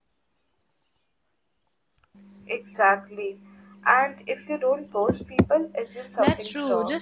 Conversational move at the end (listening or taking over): taking over